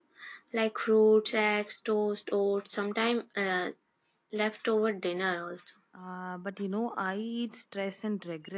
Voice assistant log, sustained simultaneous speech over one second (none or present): none